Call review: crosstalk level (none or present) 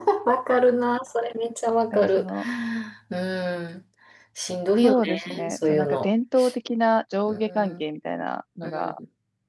present